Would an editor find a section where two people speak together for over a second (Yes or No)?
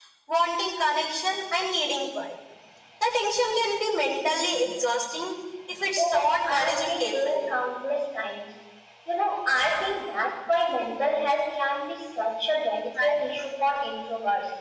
Yes